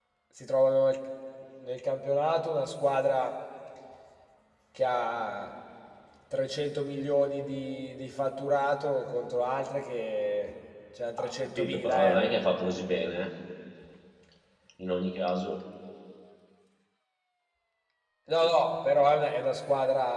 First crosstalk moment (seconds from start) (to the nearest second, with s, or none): 11 s